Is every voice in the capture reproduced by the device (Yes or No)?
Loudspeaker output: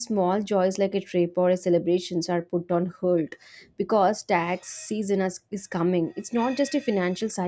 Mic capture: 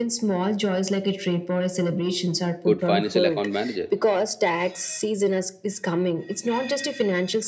No